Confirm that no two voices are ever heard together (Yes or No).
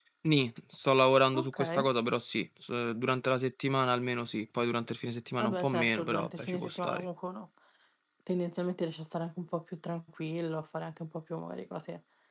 No